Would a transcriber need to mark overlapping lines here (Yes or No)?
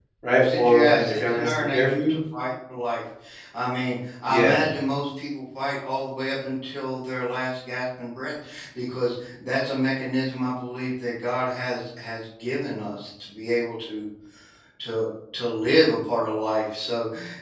Yes